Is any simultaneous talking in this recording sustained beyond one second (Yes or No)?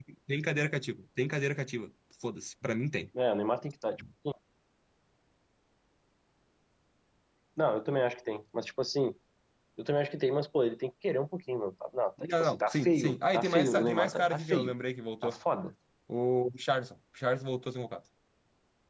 Yes